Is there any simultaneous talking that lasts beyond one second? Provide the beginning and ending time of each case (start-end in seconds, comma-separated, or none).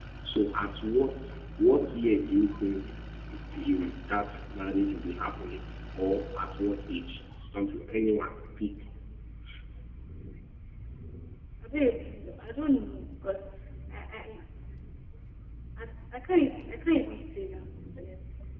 none